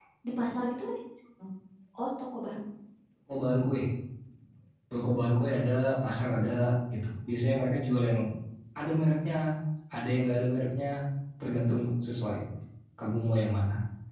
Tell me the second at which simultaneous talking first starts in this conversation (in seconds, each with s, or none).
none